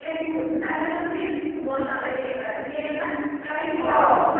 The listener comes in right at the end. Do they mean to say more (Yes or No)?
No